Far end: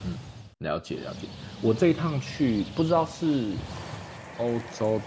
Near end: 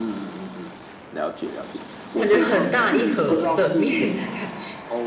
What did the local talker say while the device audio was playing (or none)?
感觉很大一盒的面的感觉。